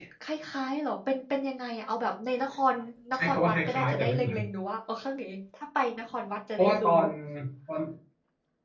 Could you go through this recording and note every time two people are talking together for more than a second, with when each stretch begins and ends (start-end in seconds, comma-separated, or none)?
3.1-4.4